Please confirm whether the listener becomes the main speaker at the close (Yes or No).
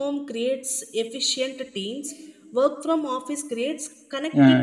Yes